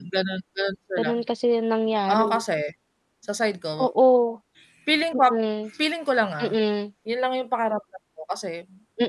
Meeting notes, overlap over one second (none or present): none